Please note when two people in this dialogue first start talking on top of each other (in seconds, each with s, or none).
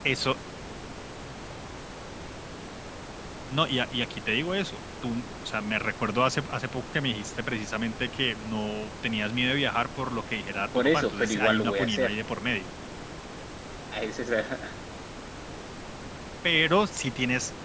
10.7 s